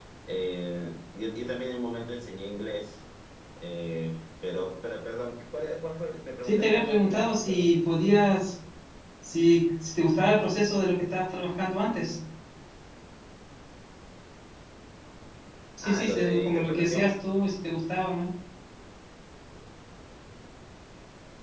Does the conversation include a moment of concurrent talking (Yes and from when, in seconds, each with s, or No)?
Yes, from 6.4 s